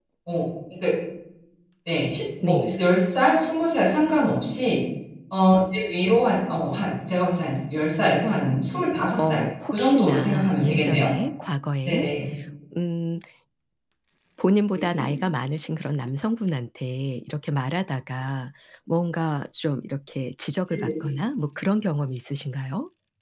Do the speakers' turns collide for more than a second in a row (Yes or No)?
Yes